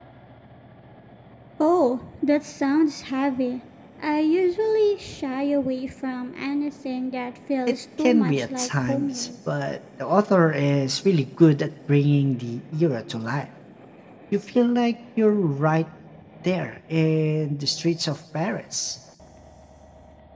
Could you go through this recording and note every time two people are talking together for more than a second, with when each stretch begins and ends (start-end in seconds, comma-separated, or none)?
7.7-9.3